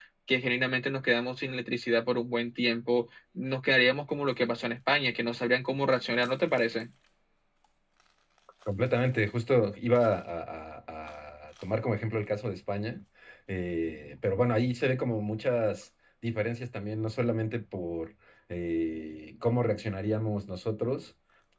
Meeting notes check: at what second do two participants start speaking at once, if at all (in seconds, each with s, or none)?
none